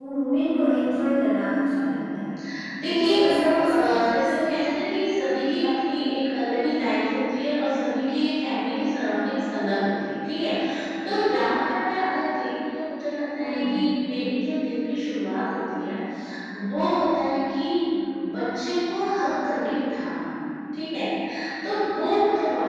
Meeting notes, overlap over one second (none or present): present